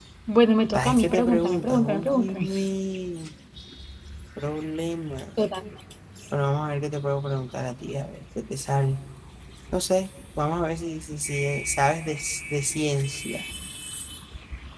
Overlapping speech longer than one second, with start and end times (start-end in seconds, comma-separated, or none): 0.9-2.5